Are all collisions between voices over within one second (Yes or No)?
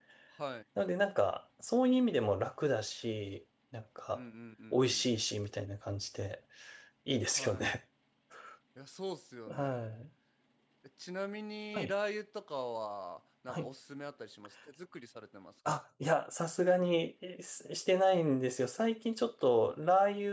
Yes